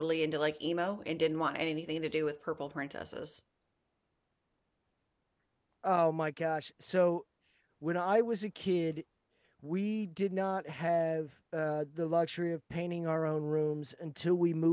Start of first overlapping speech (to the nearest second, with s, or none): none